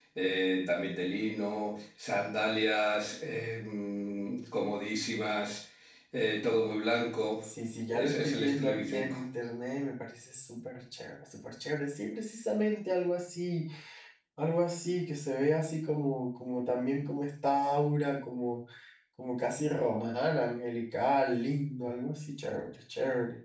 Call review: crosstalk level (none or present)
present